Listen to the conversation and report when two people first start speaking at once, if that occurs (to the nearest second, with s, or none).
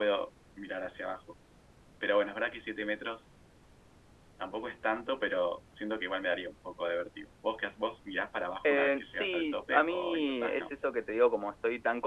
9 s